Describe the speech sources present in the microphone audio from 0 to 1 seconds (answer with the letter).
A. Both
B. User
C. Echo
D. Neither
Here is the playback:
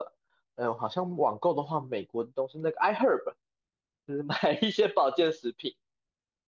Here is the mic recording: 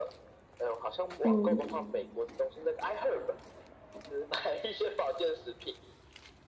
C